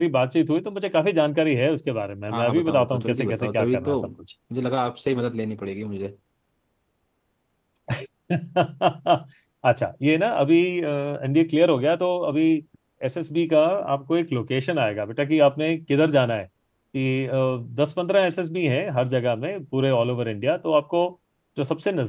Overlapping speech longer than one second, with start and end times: 2.3-4.1

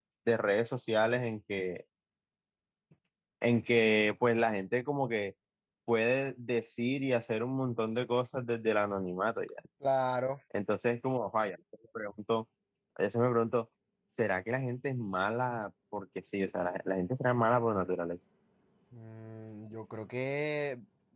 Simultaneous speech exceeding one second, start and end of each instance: none

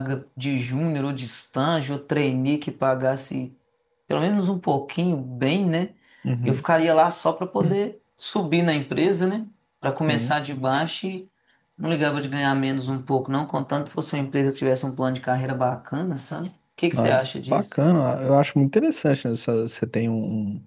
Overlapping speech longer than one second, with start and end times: none

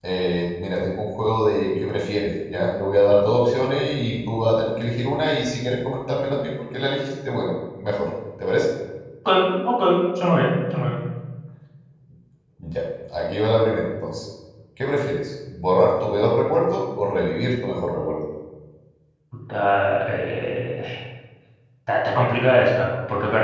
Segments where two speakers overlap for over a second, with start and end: none

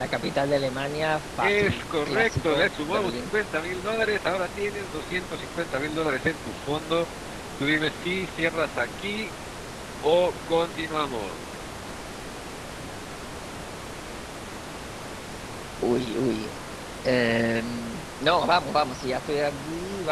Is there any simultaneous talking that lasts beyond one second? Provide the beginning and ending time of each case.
1.4-3.2

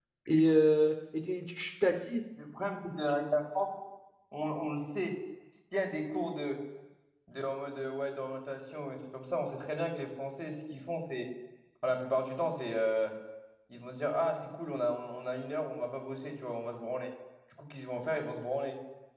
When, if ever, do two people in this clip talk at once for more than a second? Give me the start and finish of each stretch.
none

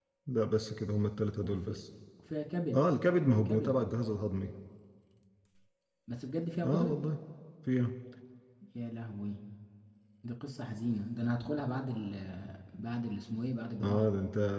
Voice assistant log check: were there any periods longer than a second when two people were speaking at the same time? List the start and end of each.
none

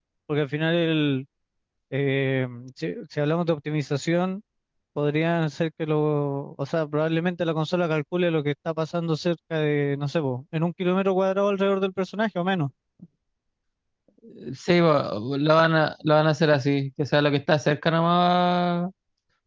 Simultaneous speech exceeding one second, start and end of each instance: none

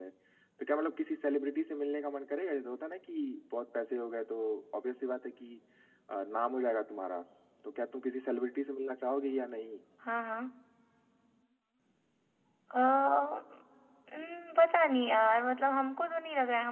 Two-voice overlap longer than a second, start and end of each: none

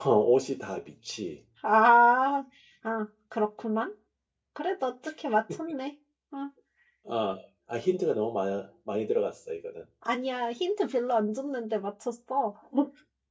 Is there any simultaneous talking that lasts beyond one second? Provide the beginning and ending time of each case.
none

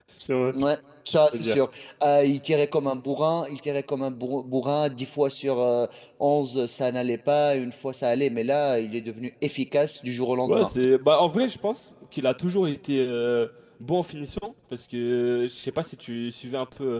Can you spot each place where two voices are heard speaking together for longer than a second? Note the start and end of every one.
none

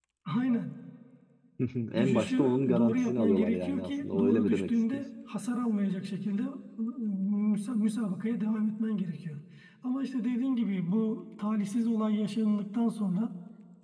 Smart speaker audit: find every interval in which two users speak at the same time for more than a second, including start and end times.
1.9-5.0

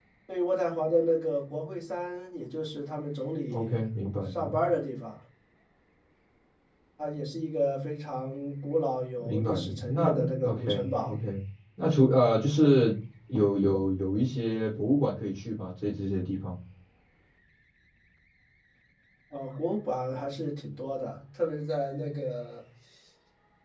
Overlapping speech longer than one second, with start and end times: 9.2-11.1

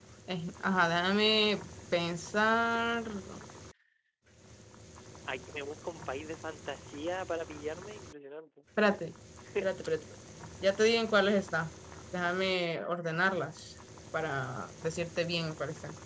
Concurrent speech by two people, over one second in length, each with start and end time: none

